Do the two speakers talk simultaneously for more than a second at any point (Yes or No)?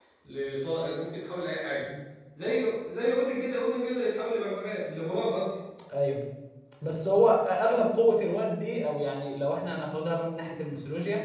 No